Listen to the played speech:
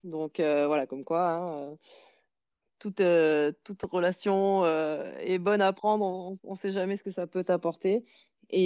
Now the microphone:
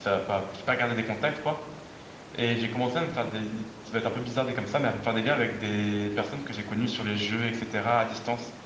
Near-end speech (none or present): present